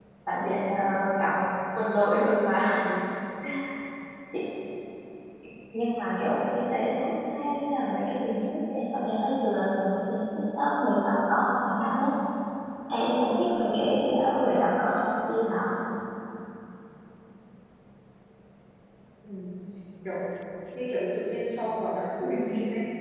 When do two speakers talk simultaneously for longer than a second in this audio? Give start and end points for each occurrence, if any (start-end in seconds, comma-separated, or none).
none